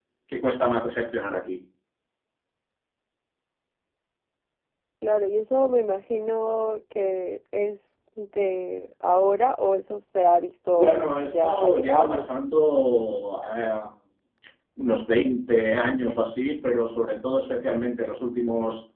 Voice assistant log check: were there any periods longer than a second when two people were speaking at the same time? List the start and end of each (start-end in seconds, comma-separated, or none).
10.7-12.3